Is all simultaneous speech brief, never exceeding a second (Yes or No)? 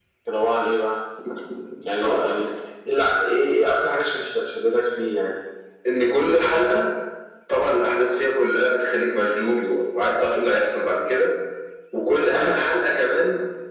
Yes